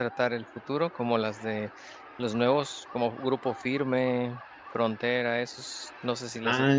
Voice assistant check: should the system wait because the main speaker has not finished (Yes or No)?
No